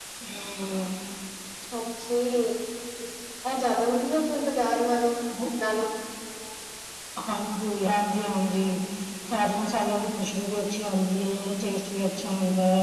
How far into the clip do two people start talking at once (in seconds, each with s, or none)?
none